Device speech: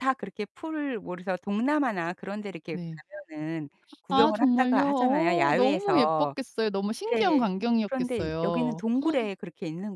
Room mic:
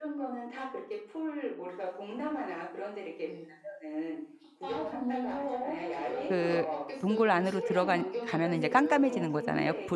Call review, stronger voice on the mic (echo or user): user